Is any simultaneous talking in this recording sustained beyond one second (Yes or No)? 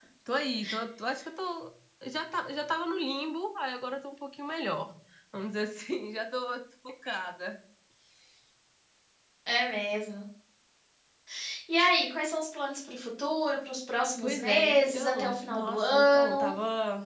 Yes